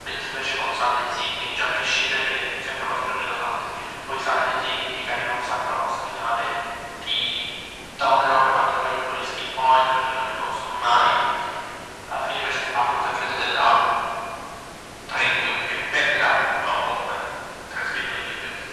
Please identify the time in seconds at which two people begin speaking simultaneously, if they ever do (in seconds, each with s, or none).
none